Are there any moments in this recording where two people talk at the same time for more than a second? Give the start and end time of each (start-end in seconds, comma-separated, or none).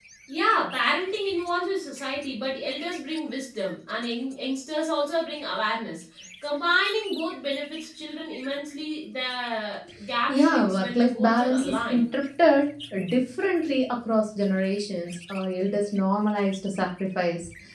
10.3-12.1